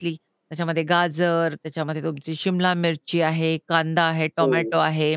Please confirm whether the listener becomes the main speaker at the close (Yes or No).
No